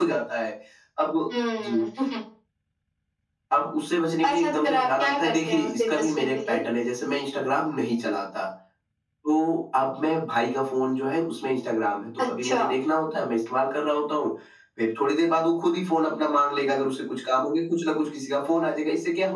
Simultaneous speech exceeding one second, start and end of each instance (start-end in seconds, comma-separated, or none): 4.2-6.6